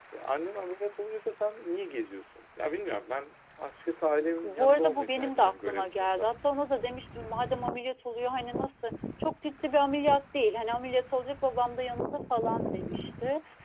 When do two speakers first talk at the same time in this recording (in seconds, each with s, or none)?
4.4 s